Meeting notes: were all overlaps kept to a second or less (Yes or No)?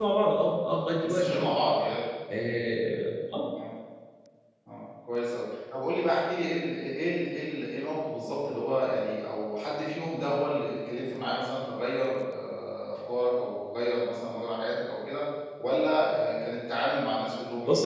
Yes